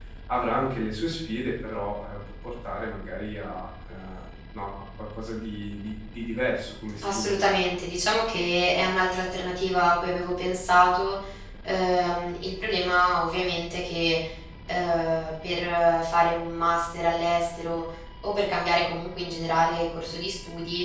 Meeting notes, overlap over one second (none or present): none